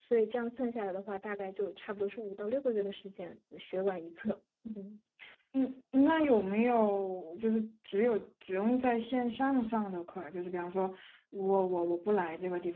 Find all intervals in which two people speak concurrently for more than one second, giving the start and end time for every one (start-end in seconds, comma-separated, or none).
none